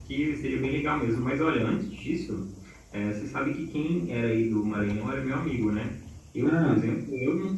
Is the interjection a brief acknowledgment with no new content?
Yes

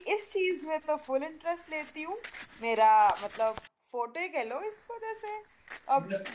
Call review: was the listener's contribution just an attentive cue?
Yes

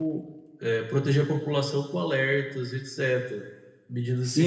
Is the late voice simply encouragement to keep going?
No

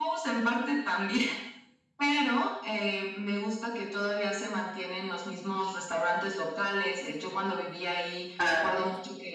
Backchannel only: Yes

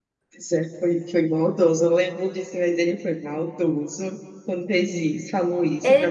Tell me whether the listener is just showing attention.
No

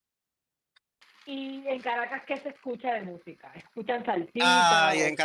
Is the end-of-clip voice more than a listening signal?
Yes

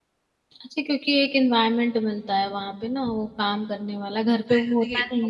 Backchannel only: No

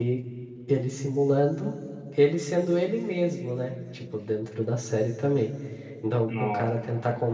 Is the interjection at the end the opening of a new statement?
No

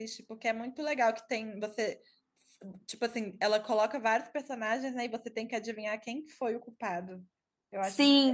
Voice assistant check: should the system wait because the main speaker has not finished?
No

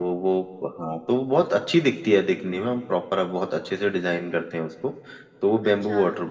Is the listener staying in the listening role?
Yes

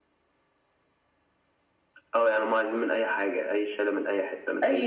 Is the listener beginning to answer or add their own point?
Yes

